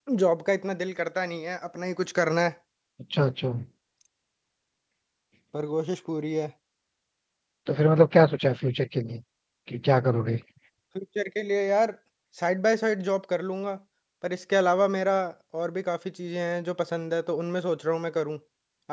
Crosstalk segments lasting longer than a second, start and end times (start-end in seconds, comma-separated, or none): none